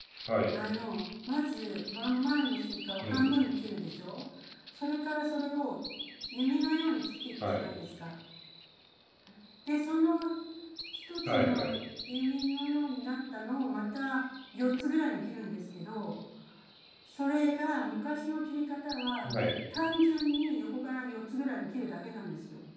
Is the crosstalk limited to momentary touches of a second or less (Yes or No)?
Yes